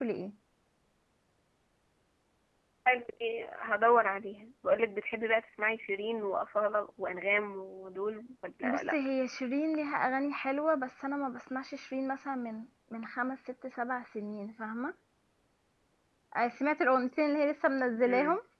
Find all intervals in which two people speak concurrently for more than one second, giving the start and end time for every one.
none

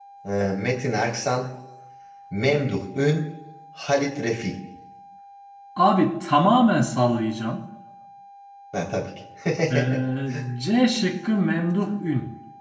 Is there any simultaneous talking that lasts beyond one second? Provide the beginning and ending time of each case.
none

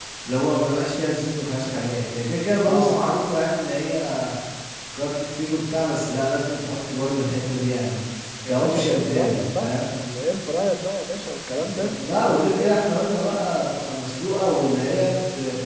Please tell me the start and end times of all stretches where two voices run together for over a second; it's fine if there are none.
8.5-9.7, 11.6-12.8

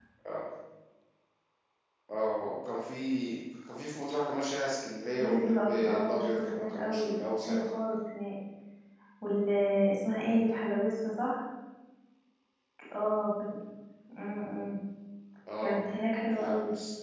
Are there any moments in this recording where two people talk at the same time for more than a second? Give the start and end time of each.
5.2-7.6

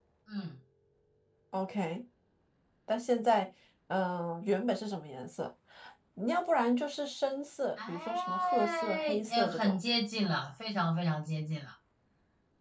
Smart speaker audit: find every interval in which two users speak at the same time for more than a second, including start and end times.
7.9-9.8

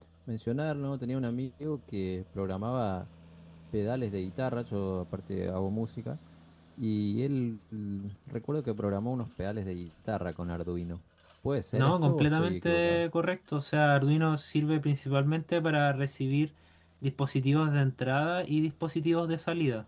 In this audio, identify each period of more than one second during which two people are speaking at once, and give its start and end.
11.7-13.0

